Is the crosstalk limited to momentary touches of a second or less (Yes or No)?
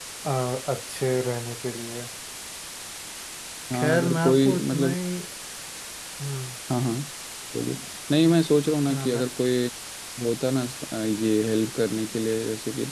No